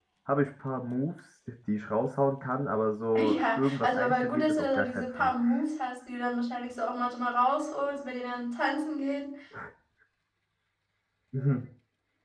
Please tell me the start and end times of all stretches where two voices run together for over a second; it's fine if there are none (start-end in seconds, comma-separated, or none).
3.4-5.3